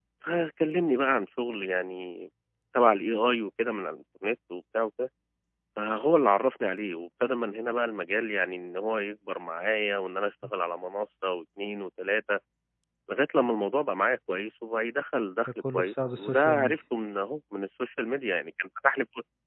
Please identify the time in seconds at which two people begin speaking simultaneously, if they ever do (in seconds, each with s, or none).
15.4 s